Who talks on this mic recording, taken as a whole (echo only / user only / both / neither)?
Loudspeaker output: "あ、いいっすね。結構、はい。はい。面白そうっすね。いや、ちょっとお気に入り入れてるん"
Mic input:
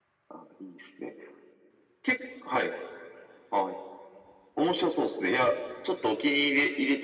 echo only